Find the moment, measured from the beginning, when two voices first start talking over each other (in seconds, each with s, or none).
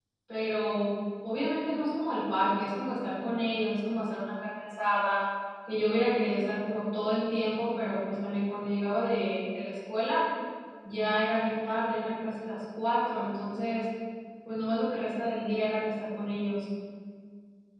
none